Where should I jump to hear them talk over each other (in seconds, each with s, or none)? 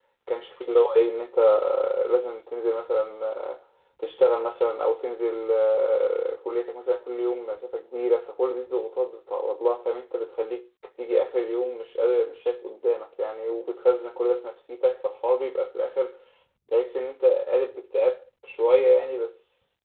none